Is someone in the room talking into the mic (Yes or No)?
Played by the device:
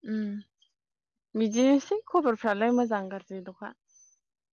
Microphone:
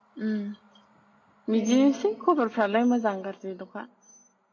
Yes